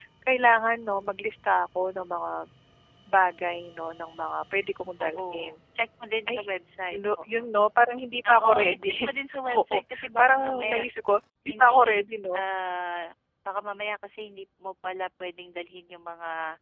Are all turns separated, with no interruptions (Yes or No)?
No